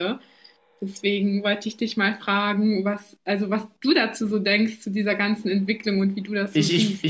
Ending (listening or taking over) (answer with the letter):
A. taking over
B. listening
A